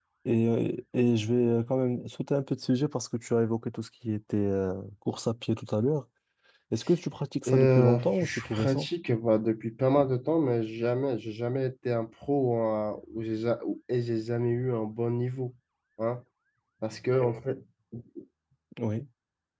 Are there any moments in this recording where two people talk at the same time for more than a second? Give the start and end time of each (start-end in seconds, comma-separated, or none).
7.5-8.9